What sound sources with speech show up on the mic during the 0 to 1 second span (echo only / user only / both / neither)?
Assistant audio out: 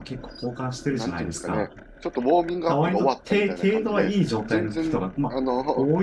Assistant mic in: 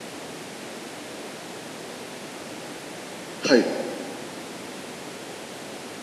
neither